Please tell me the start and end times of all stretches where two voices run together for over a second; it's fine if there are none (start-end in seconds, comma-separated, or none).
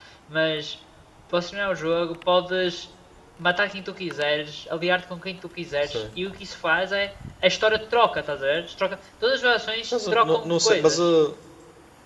9.9-11.1